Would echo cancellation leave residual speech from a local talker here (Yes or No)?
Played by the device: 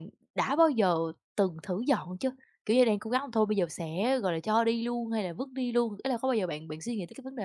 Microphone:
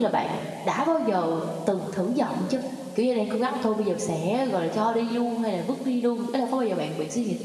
No